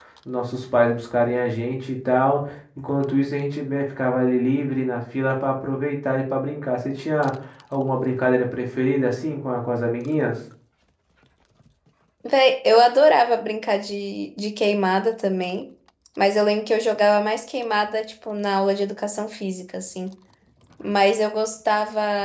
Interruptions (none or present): none